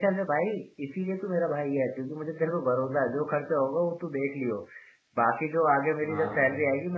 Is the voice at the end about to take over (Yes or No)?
No